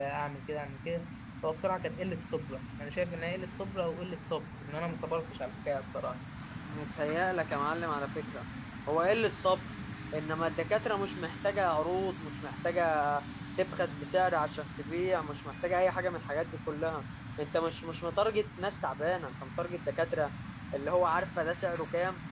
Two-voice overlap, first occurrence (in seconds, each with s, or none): none